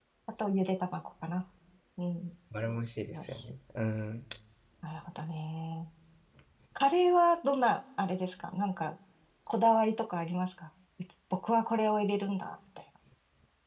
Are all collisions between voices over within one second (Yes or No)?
Yes